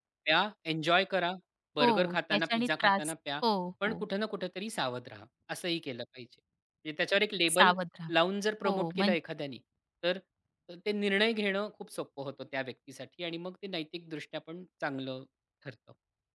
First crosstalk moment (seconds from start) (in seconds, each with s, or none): 1.8 s